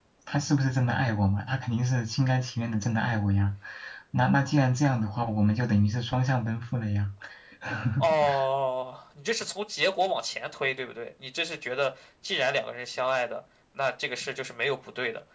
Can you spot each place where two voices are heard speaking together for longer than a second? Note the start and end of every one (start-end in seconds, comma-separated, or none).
none